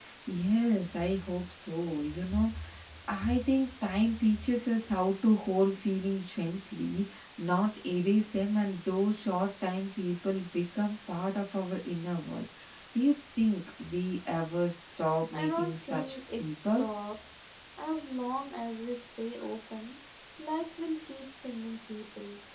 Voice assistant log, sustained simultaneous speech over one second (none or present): present